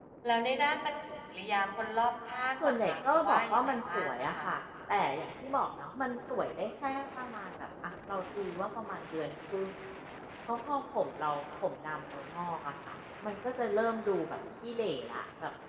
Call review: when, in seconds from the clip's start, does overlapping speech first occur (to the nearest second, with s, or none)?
3 s